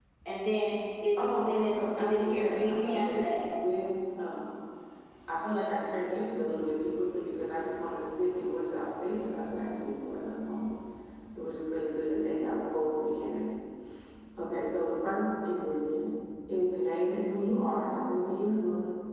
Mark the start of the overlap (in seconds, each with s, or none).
1.2 s